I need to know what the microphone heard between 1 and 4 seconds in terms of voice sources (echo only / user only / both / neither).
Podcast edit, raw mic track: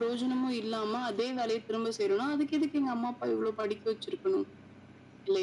echo only